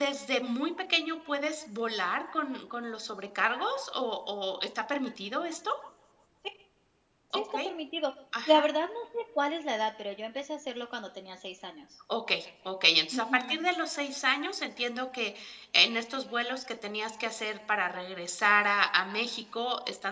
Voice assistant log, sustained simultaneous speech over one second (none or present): none